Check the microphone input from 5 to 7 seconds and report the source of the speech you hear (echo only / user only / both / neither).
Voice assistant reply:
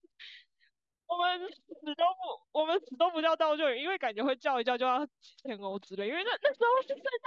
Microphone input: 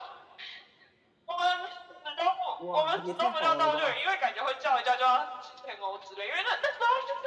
echo only